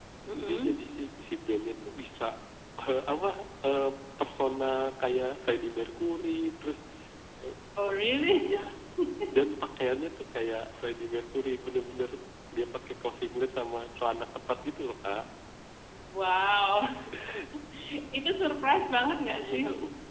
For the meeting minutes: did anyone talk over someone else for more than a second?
No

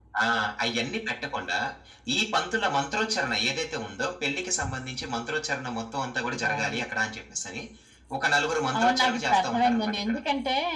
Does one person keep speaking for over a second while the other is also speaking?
Yes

